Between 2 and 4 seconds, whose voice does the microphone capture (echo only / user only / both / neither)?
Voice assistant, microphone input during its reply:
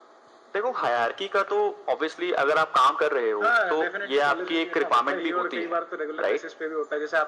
echo only